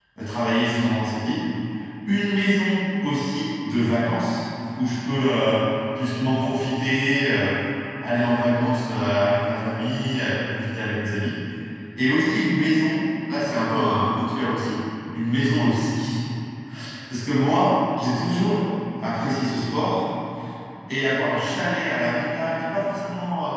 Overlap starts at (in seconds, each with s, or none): none